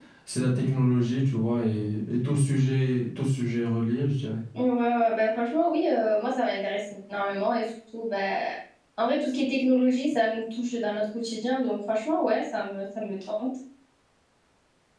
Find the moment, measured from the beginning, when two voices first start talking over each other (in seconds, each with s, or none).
none